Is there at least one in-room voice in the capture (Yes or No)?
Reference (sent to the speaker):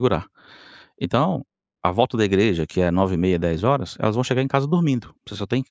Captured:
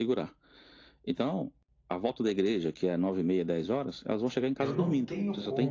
Yes